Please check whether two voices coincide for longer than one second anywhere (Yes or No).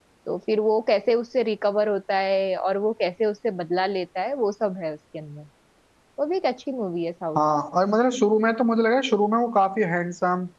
No